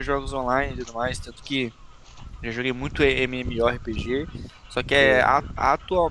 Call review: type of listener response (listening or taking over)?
listening